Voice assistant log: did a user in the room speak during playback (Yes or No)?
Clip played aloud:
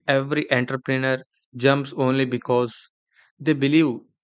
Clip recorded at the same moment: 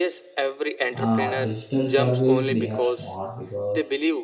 Yes